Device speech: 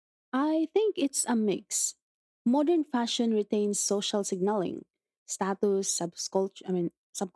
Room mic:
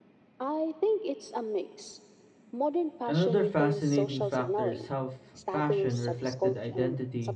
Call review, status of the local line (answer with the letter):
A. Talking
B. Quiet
A